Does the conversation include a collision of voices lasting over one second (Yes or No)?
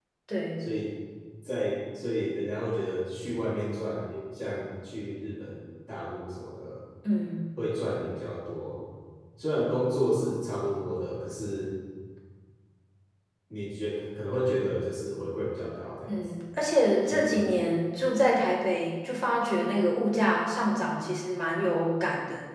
No